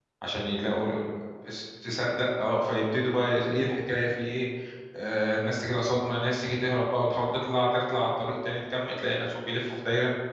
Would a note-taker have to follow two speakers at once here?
No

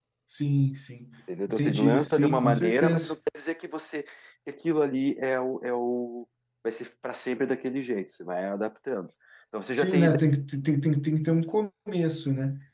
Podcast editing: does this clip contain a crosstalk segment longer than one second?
Yes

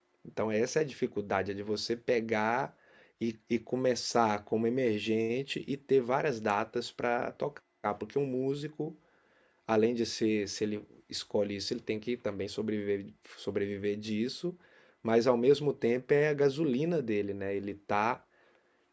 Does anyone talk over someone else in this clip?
No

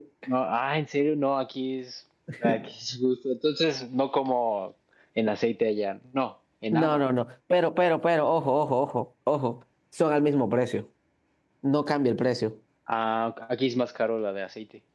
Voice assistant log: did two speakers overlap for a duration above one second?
No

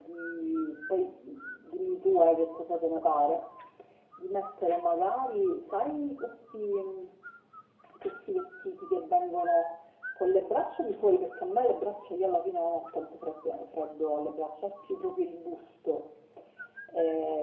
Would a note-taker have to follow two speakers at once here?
No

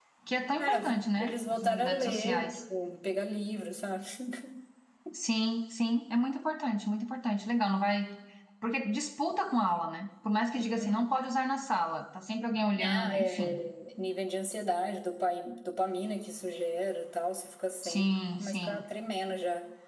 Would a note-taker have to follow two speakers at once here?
Yes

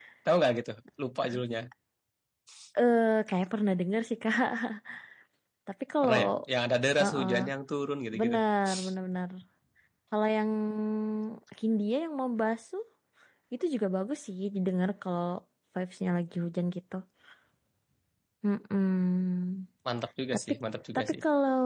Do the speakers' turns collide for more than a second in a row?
No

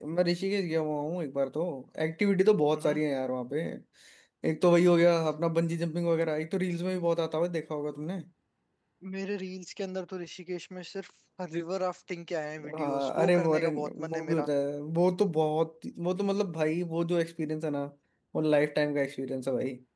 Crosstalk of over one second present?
Yes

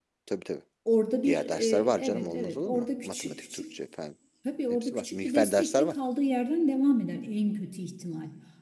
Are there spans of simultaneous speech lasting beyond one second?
Yes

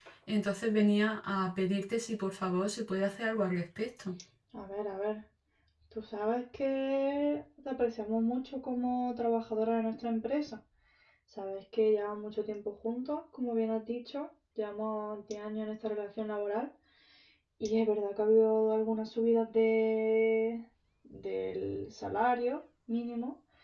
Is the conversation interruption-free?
Yes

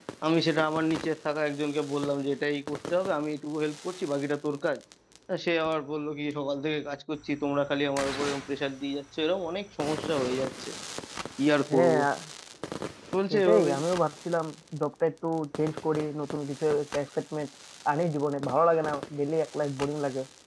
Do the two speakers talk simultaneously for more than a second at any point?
No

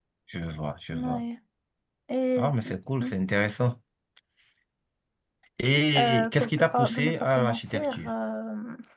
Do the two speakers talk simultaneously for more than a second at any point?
Yes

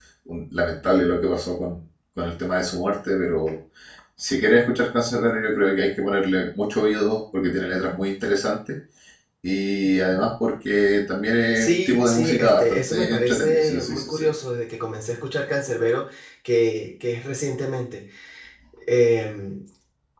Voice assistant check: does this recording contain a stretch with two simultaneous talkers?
Yes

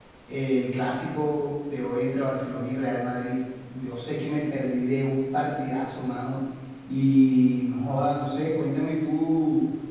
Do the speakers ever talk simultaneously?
No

